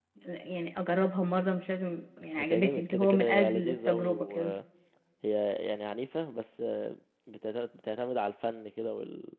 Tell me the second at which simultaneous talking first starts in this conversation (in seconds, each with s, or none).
2.4 s